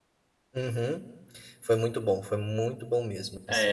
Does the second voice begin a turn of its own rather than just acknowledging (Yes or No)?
Yes